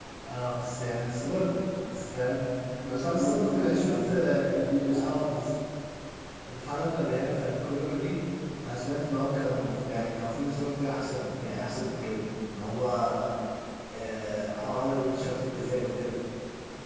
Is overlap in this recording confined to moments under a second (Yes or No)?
No